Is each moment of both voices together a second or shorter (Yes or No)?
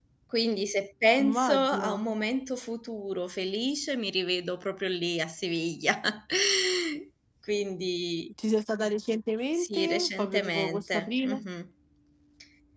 No